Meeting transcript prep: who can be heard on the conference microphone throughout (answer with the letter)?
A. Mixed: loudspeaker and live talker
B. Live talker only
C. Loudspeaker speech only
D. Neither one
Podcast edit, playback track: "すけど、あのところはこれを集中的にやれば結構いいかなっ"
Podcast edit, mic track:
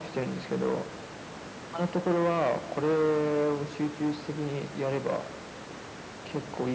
C